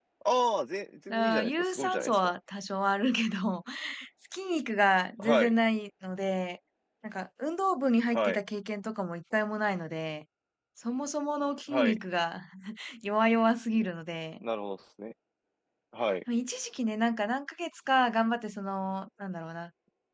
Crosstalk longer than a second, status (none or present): present